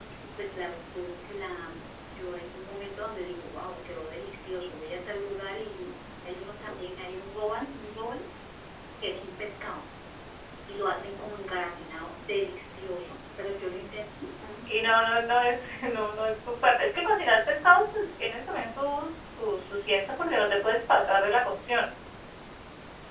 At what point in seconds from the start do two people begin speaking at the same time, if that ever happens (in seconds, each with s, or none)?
none